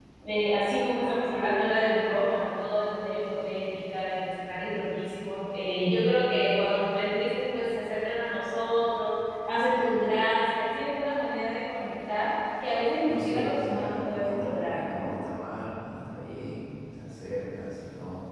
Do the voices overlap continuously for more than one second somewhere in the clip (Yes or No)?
Yes